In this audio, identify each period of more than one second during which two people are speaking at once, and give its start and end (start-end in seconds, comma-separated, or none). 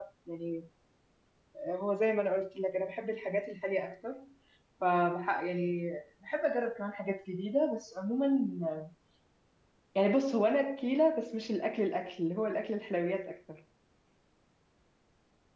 none